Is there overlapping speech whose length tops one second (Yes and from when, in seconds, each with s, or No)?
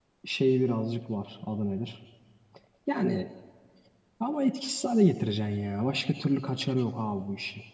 No